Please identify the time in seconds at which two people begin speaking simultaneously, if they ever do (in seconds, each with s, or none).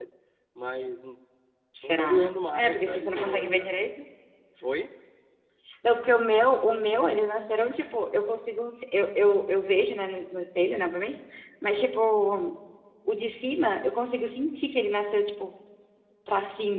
1.8 s